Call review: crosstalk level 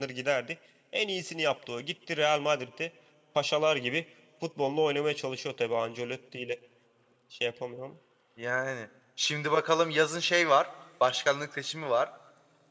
none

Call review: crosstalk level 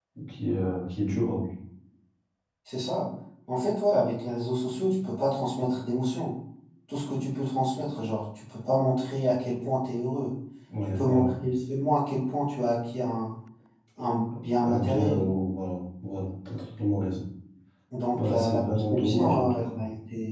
present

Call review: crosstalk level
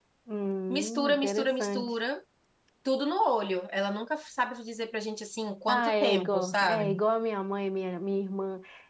present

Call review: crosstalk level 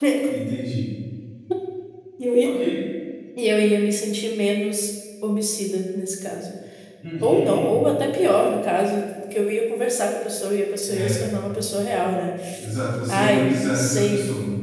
present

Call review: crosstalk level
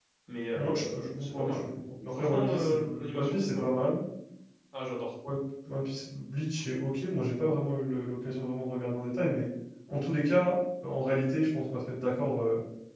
present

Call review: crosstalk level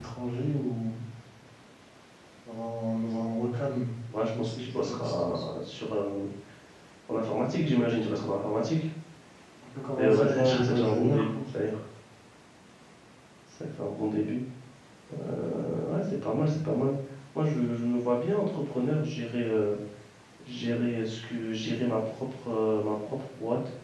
present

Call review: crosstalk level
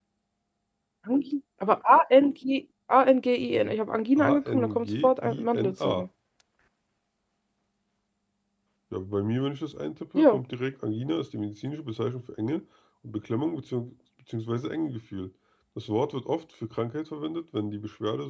present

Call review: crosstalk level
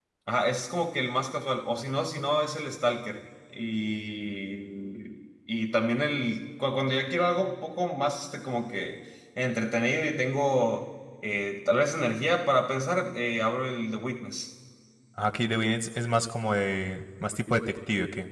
none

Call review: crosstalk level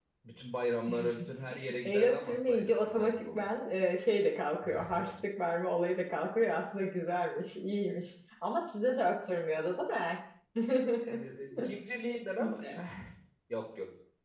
present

